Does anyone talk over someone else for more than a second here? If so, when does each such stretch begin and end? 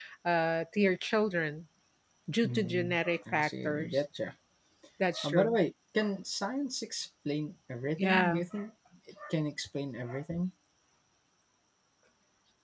2.4-3.9

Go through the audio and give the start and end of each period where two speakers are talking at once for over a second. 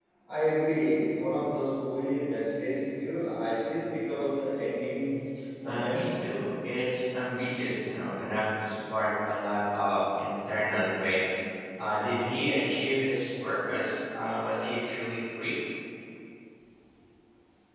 none

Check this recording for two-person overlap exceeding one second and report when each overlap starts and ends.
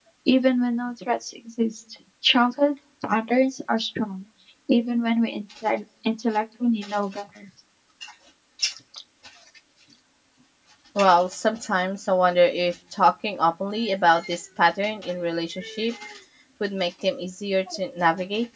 none

